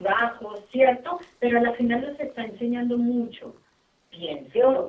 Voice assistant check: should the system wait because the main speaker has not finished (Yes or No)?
No